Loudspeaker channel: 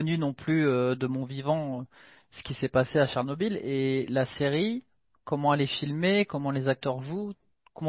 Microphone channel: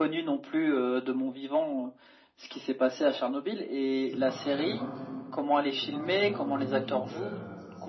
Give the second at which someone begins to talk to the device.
4 s

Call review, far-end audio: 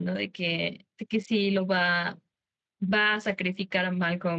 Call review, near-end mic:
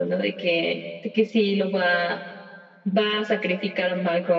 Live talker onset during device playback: none

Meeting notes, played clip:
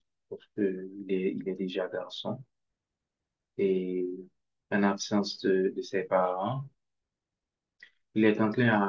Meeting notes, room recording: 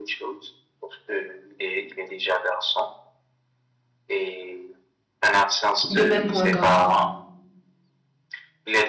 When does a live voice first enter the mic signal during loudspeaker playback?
6 s

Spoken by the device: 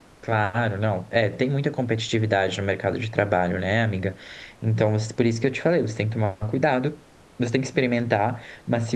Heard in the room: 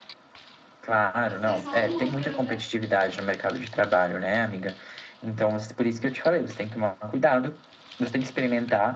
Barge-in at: 1 s

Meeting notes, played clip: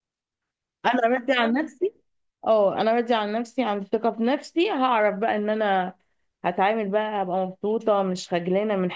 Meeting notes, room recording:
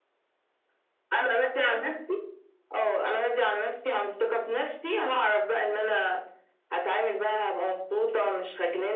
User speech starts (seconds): none

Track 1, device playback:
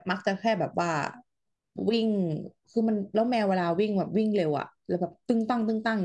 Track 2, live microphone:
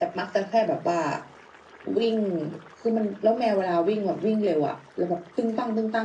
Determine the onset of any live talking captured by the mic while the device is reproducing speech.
none

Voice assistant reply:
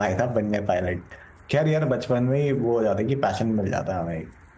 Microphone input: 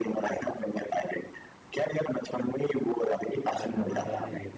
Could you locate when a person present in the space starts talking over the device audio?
4 s

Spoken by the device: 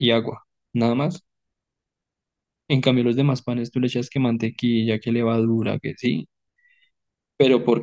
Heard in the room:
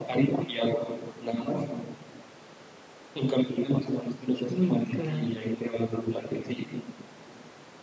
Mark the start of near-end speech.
4 s

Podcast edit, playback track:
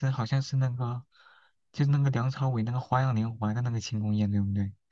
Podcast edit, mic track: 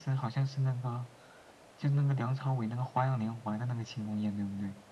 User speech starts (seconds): none

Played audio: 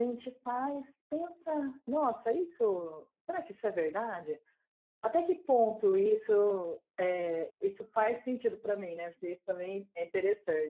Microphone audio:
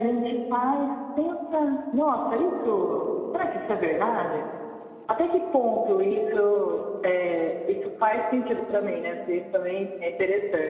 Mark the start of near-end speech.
none

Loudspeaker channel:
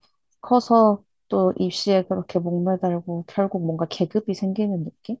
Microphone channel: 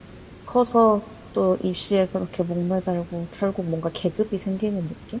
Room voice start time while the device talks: none

